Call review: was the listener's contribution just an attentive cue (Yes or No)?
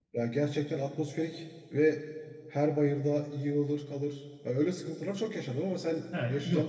No